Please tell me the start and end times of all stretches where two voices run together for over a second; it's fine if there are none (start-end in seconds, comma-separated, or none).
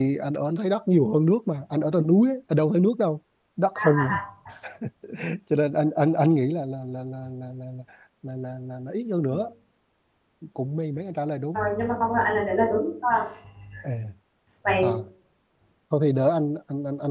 none